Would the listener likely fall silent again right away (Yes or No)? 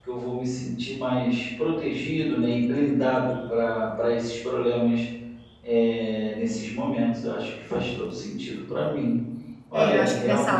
No